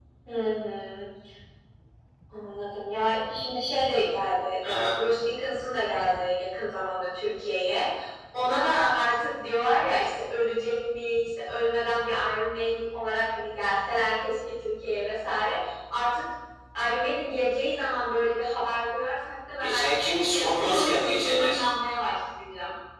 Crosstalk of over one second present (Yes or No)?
Yes